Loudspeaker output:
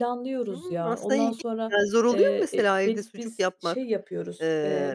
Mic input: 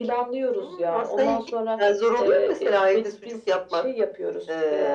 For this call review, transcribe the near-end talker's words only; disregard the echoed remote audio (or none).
none